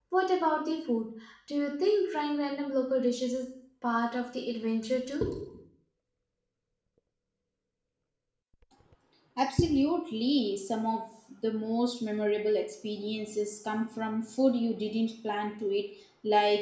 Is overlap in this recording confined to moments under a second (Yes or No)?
Yes